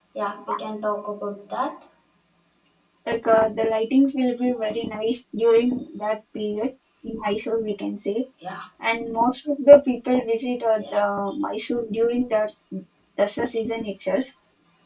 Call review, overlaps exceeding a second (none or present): none